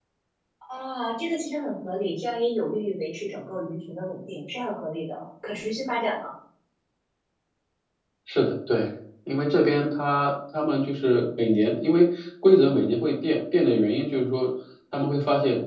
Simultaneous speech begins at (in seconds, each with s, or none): none